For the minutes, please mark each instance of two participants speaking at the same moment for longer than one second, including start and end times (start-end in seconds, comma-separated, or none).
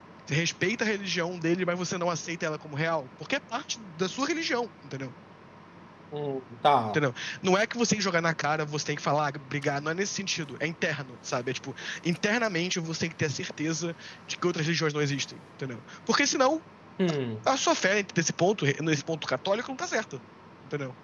none